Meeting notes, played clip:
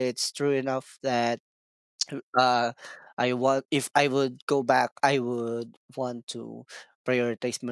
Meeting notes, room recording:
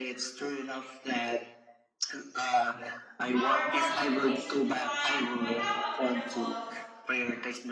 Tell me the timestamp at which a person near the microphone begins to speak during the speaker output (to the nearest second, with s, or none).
3 s